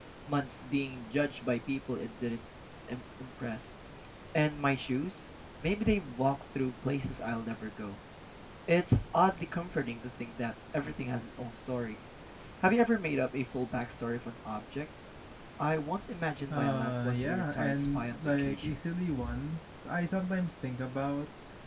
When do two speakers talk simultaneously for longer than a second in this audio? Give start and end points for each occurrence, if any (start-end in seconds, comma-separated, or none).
16.5-18.8